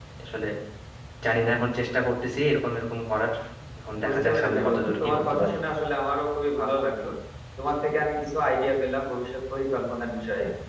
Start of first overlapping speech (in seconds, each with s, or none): 4.0 s